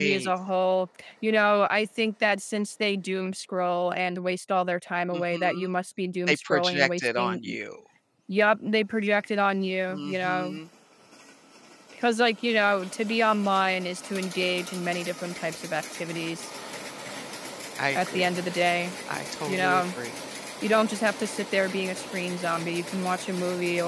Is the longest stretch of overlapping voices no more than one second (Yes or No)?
No